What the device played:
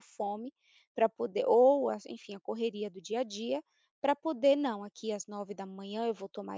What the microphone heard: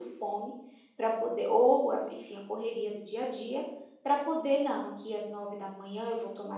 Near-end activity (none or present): none